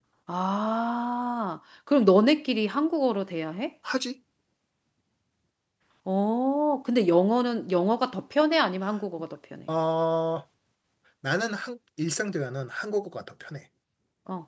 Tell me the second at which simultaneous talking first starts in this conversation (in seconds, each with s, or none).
none